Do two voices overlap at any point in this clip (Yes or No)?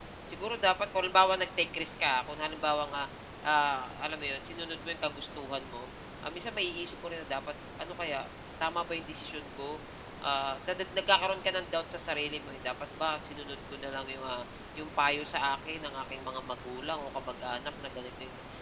No